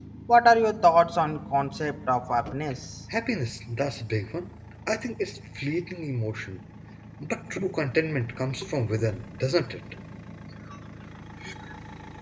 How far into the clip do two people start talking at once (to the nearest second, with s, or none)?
none